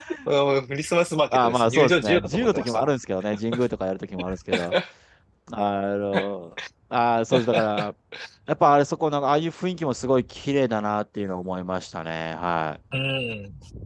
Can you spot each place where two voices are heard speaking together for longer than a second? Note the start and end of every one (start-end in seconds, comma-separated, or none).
1.3-2.9